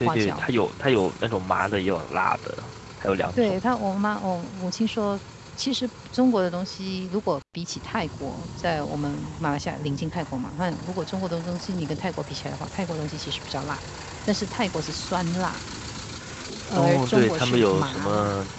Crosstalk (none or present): present